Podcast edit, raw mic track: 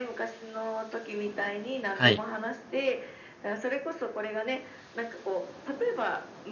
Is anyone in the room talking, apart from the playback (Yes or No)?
Yes